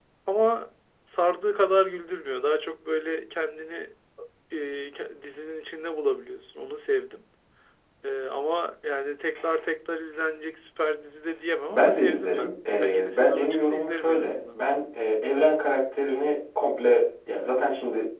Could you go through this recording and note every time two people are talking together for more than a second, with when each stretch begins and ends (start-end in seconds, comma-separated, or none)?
11.7-14.6